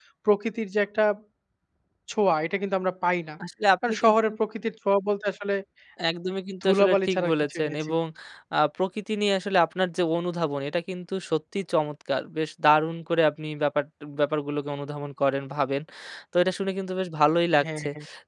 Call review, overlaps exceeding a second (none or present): present